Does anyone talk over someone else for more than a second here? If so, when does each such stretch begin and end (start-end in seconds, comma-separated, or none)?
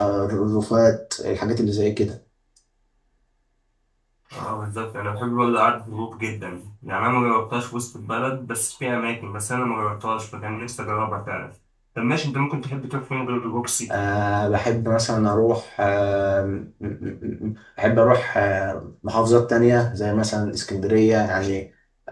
none